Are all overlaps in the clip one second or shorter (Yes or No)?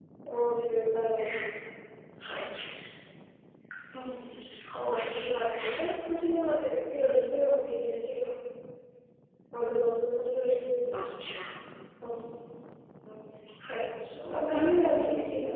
No